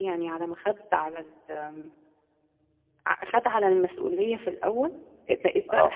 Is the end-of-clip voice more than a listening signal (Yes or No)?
No